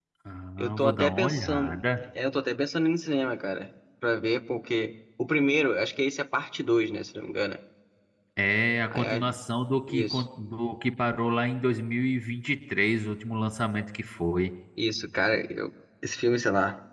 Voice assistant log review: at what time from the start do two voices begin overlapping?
0.6 s

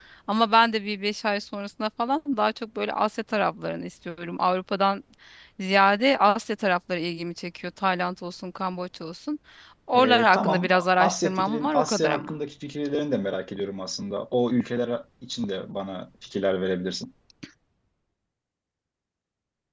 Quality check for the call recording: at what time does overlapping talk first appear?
9.9 s

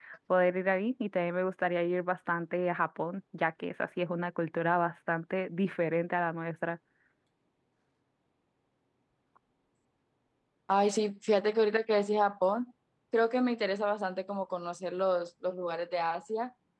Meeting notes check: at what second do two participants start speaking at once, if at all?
none

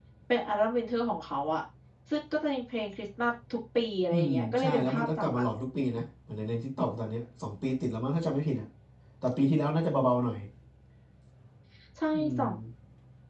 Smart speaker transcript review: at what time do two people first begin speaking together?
4.1 s

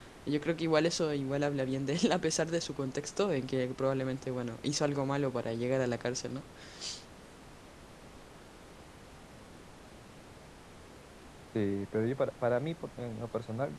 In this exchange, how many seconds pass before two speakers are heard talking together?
none

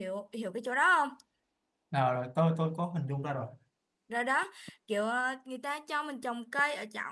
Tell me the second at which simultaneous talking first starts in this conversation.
none

